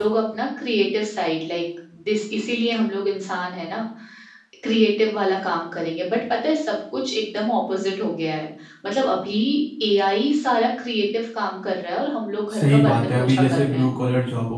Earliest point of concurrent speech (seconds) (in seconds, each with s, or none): 12.5 s